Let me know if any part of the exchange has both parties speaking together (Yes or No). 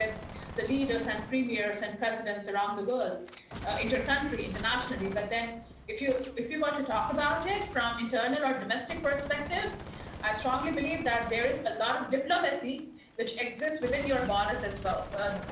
No